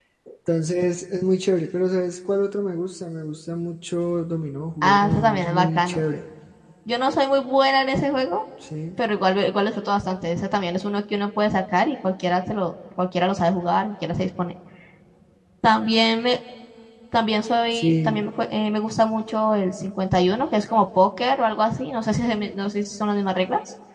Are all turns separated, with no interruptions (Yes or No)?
No